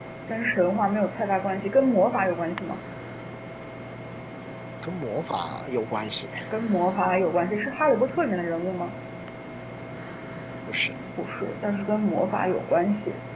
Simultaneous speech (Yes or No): No